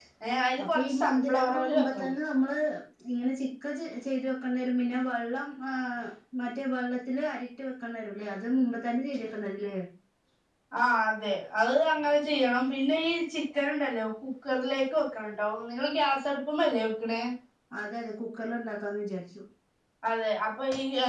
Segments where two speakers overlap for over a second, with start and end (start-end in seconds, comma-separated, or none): 0.6-2.1